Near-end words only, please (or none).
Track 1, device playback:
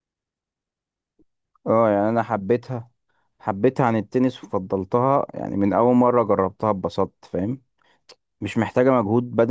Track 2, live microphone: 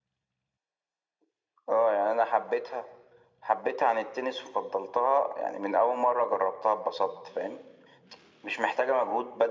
none